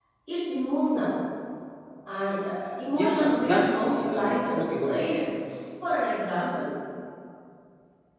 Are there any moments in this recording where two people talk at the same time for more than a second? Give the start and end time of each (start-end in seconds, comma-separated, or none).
2.9-5.0